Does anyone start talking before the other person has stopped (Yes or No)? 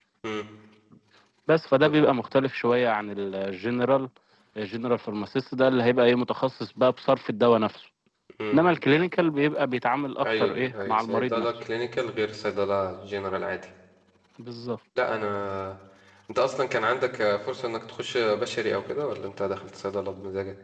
Yes